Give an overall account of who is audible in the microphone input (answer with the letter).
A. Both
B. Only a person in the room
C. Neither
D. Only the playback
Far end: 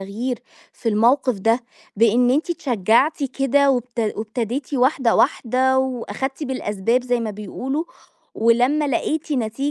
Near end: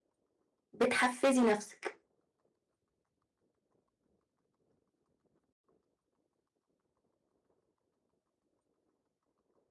B